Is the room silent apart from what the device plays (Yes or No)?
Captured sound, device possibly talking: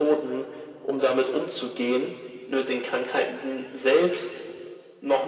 Yes